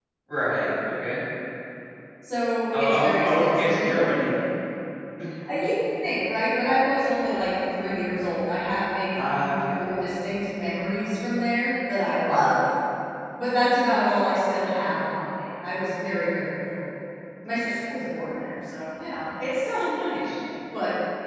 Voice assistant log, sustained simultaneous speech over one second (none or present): present